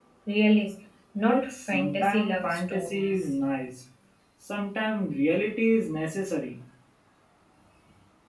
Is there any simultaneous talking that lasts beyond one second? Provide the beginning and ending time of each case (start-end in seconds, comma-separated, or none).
1.2-3.1